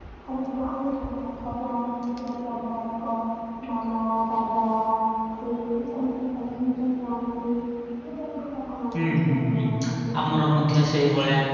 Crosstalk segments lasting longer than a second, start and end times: 9.0-10.2

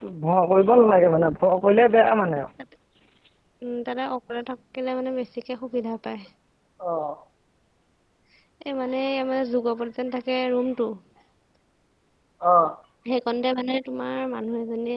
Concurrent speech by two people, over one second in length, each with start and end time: none

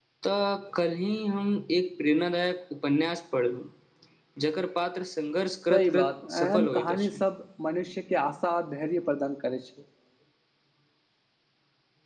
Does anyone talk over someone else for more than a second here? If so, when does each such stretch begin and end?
5.7-7.2

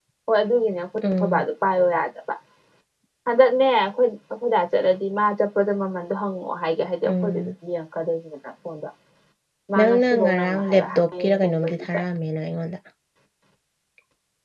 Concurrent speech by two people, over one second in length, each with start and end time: 9.8-11.8

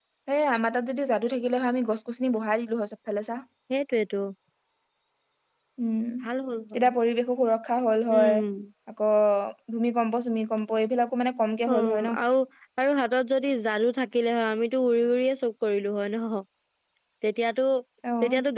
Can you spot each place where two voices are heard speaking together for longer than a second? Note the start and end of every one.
none

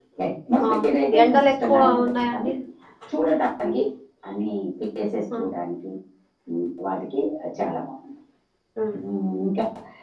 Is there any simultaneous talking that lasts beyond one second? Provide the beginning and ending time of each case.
1.2-2.5

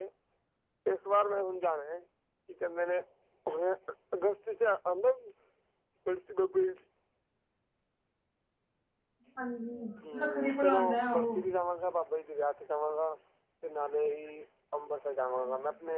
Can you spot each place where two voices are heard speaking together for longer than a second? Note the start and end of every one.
10.1-11.3

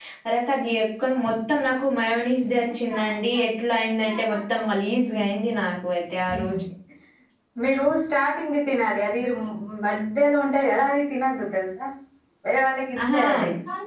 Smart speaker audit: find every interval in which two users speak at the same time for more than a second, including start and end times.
none

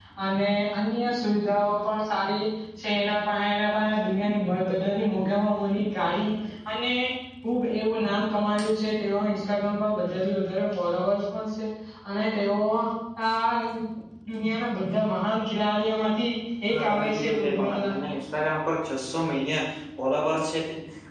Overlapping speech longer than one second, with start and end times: 16.7-17.9

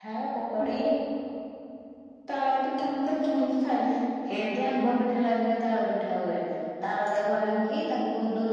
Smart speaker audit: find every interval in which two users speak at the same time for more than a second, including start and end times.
none

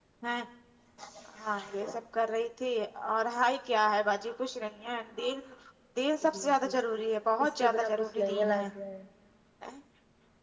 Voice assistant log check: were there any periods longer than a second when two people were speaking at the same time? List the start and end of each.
7.4-8.6

